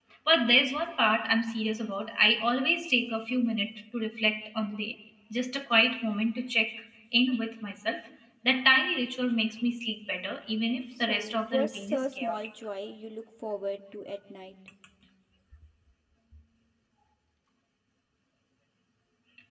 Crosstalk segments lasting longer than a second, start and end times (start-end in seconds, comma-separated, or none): 11.1-12.4